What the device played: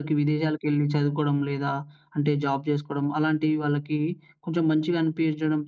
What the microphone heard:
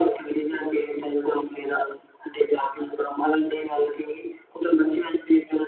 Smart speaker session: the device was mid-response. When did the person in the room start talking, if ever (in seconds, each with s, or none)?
none